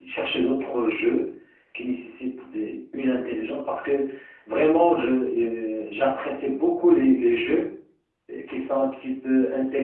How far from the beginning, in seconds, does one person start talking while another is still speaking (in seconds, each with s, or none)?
none